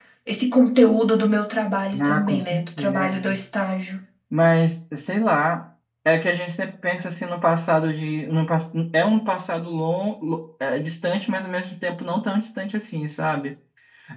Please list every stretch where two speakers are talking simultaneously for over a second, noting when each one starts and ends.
2.0-3.2

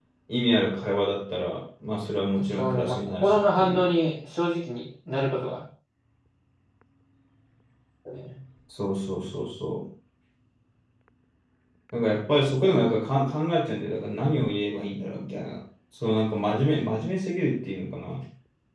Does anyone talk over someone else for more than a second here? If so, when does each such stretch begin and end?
2.6-3.9

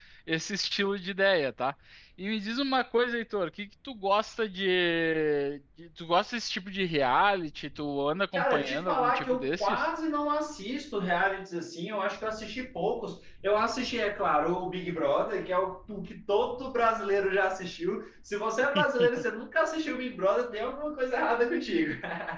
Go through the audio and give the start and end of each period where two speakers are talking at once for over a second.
8.3-9.9

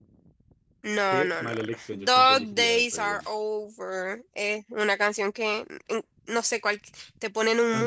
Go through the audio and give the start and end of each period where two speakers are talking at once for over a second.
1.1-3.2

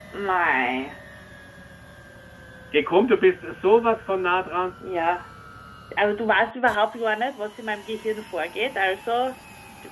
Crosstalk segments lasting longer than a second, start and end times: none

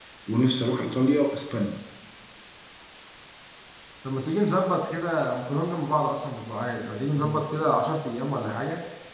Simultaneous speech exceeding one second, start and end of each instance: none

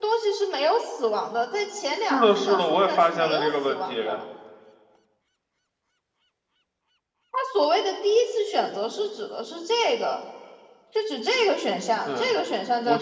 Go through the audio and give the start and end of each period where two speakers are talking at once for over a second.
2.1-3.9

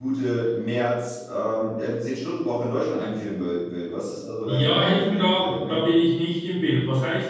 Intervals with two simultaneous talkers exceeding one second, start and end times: 4.5-5.9

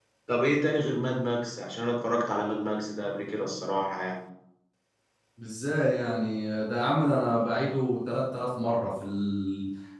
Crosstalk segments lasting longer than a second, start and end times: none

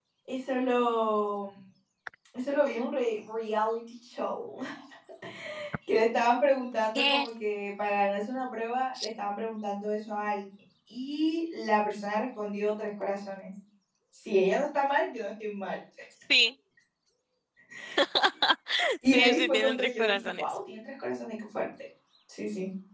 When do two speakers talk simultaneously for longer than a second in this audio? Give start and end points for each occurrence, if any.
19.1-20.4

